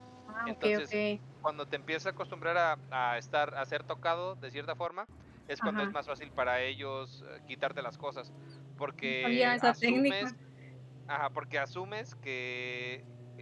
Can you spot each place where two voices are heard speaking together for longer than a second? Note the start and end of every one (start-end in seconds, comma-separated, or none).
9.0-10.3